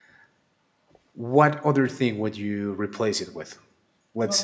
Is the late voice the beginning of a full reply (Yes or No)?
No